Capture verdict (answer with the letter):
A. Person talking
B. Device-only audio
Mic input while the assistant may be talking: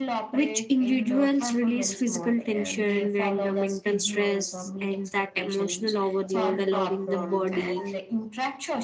A